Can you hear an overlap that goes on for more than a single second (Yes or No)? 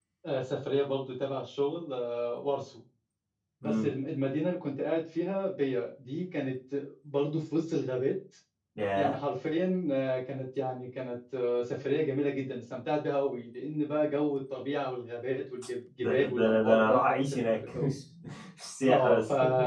Yes